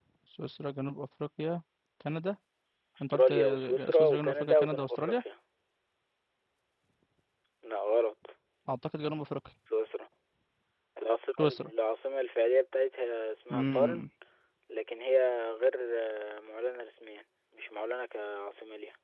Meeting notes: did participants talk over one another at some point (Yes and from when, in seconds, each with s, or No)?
Yes, from 3.1 s